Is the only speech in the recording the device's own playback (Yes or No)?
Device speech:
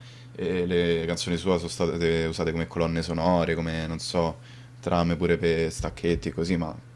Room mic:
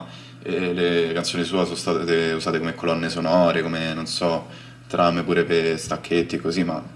Yes